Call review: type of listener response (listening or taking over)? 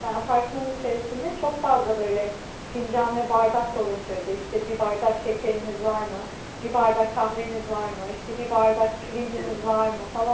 listening